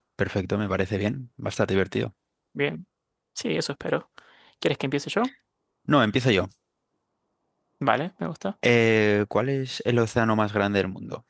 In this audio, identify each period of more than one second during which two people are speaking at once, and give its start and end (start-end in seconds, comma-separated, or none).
none